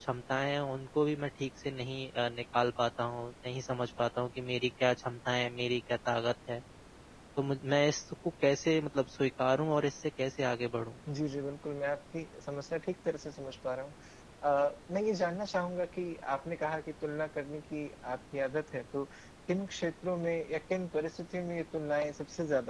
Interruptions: none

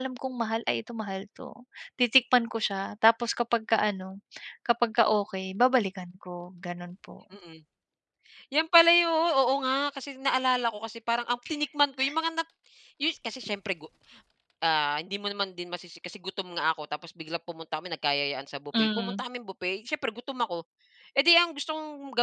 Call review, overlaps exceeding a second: none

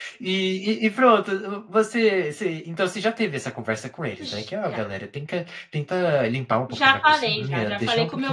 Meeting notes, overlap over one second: present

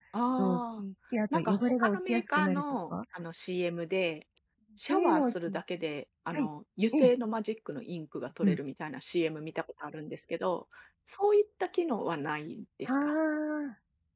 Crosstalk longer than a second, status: present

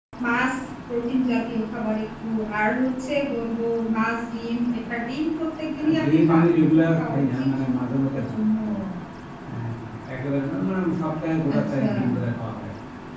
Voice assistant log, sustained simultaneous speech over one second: present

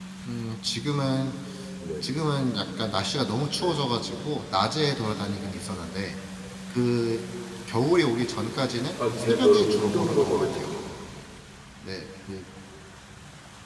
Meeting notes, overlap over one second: present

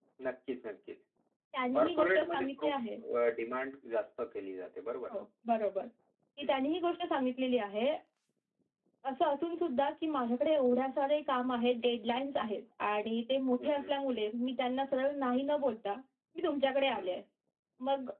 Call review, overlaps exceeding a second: present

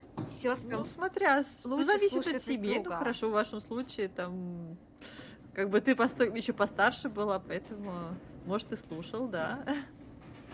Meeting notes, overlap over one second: present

